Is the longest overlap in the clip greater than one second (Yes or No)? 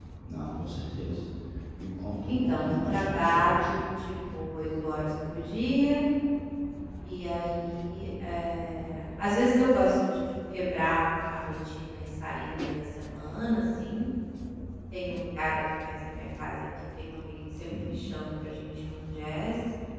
Yes